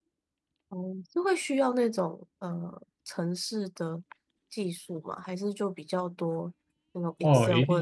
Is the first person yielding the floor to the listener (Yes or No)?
Yes